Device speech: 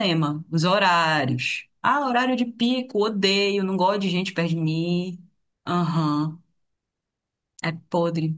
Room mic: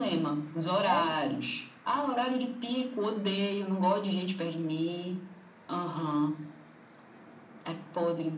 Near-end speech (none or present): present